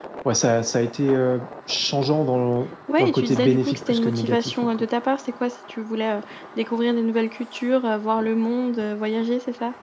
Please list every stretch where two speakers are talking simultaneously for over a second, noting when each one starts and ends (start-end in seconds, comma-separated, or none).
3.0-4.8